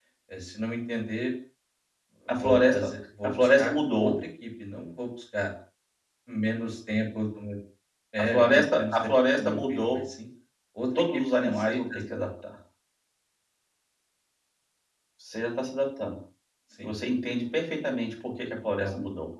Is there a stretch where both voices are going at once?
Yes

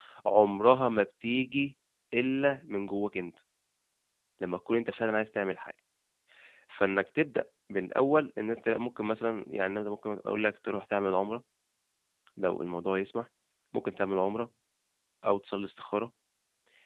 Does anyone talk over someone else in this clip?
No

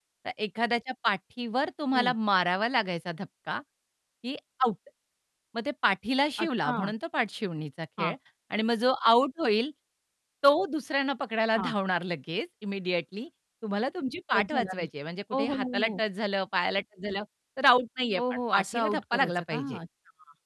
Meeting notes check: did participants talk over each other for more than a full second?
Yes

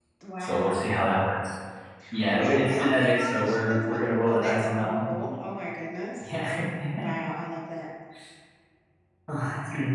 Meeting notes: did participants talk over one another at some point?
Yes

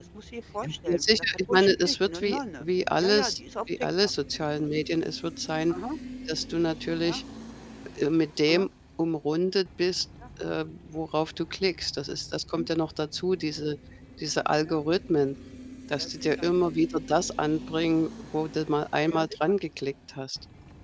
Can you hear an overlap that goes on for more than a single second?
Yes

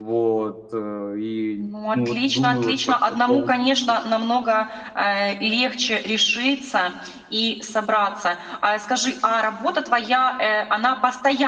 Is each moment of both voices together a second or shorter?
No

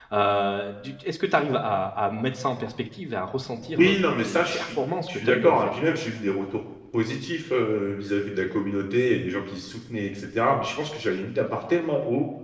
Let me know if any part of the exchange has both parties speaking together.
Yes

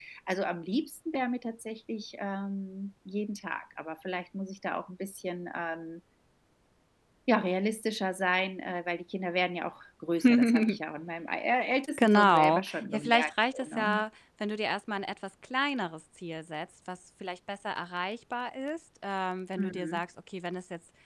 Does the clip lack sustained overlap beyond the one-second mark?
No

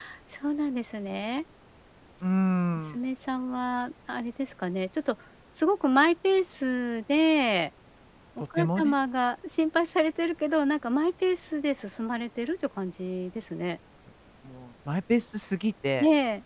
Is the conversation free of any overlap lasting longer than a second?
Yes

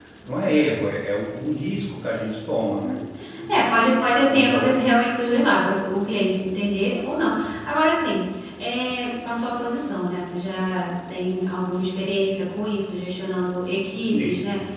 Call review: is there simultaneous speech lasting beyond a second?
No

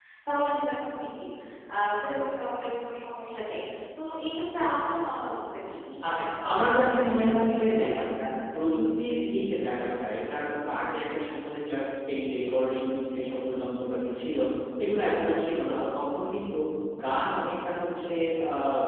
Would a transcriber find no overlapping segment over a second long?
No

